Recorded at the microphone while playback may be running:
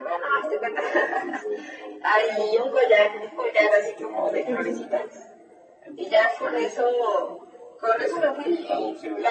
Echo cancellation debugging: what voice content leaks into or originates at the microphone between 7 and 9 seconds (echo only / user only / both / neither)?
echo only